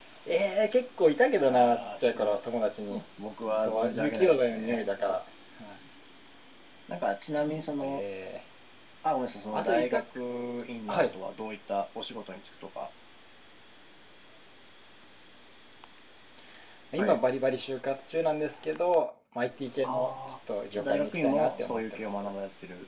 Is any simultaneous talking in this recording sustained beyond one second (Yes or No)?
Yes